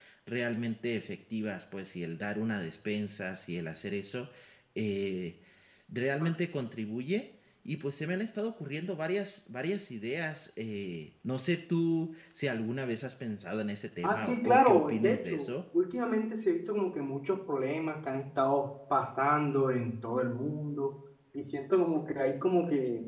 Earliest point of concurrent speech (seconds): 14.0 s

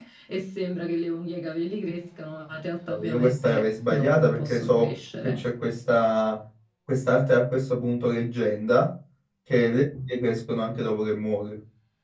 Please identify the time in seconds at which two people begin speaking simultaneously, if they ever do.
2.9 s

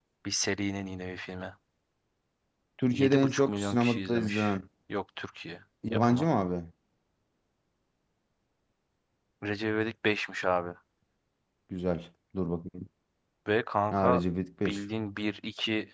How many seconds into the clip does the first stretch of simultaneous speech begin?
2.9 s

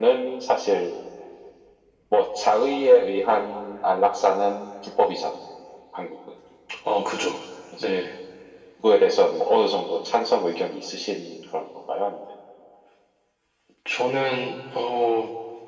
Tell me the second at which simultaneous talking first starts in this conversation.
none

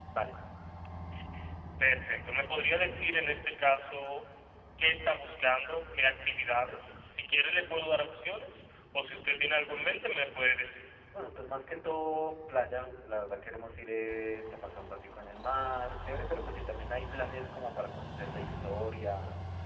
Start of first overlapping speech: none

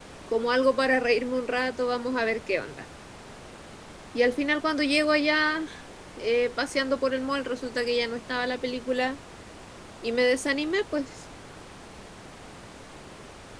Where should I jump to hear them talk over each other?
none

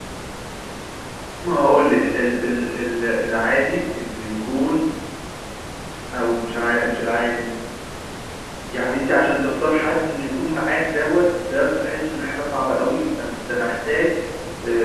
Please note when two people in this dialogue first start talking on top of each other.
none

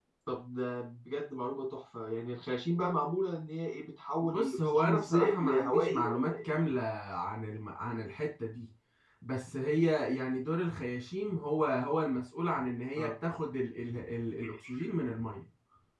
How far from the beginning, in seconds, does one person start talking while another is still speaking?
4.2 s

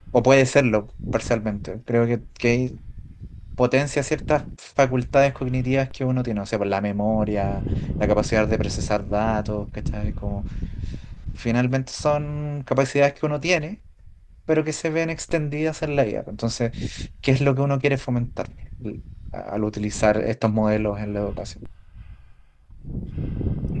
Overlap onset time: none

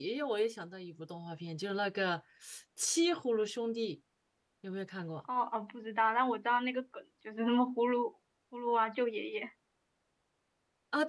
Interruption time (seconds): none

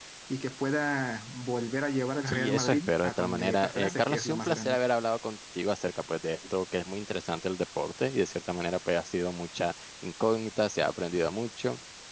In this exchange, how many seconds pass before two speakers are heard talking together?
2.3 s

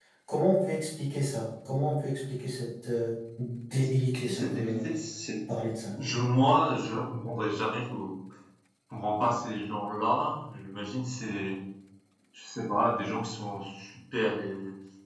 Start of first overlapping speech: 3.7 s

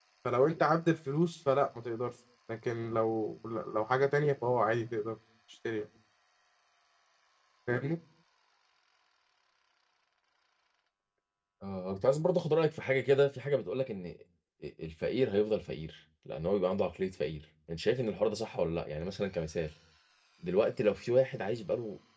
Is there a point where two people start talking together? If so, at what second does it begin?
none

